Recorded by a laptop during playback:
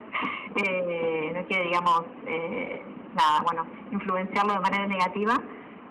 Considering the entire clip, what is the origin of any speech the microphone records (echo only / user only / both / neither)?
echo only